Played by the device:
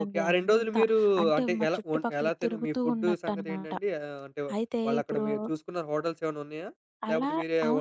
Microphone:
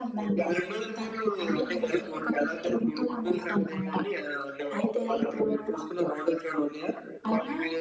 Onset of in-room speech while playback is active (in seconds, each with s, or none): none